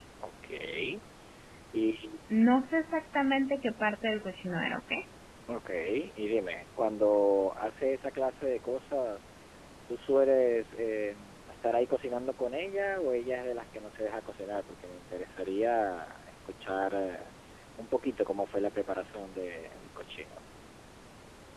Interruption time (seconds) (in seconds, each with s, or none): none